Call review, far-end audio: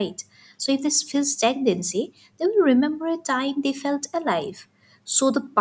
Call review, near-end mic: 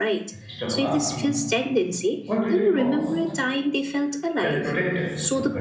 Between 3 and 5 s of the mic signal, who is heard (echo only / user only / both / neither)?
both